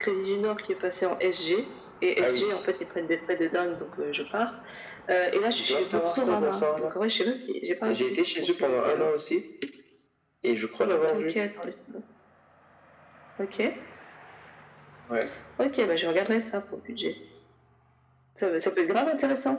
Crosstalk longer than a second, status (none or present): present